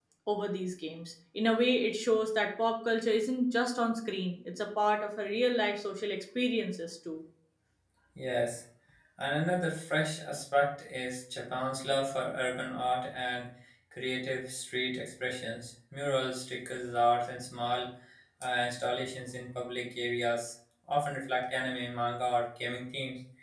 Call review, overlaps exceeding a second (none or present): none